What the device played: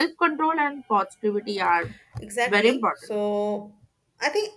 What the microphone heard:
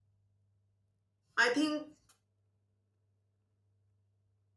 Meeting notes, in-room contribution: present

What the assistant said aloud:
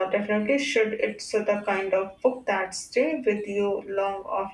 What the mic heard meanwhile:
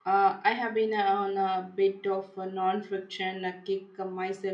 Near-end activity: present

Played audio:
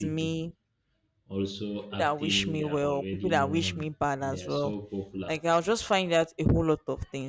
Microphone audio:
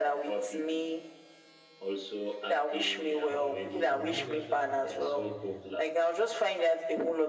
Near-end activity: present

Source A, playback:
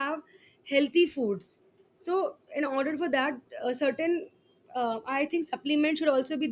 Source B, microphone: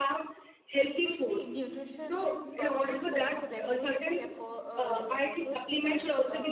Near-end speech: present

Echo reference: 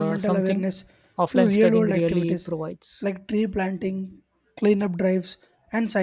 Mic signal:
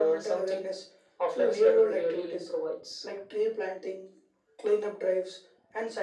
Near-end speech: none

